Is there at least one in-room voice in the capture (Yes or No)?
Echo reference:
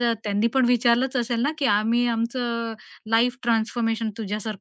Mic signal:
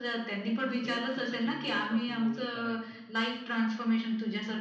Yes